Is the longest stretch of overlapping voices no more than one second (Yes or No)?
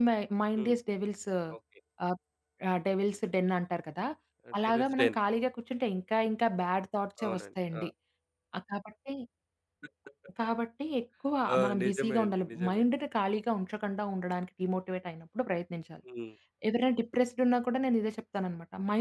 No